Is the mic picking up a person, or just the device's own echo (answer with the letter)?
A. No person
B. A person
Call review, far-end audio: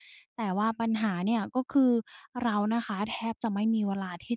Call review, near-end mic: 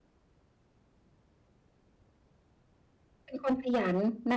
B